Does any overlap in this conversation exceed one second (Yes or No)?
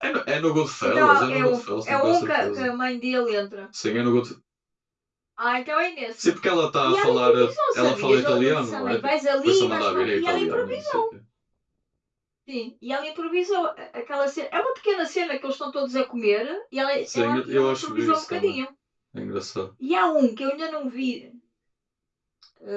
Yes